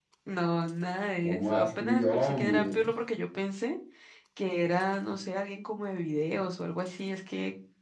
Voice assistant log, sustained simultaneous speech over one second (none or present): present